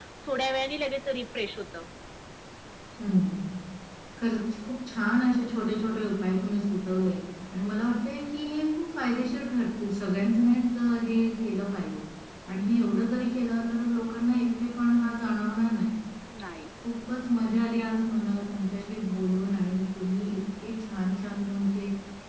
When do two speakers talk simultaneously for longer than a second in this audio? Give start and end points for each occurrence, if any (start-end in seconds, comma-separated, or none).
none